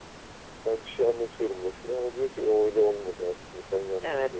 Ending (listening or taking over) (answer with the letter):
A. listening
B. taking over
B